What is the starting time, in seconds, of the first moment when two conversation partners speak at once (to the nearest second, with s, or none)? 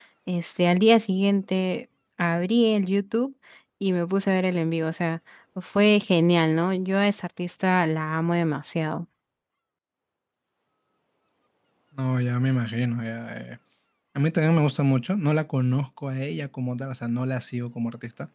none